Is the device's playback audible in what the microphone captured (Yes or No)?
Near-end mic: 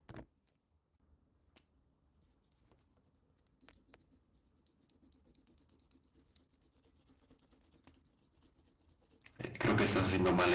No